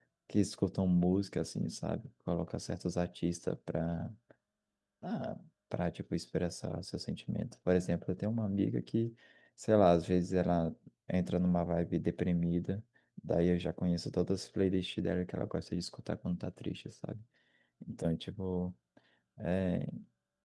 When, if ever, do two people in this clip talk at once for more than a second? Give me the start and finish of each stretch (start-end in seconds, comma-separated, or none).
none